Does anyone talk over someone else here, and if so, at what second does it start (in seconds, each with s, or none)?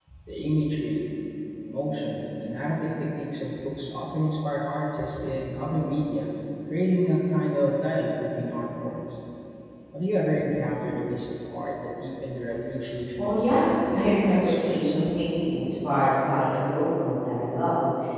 13.2 s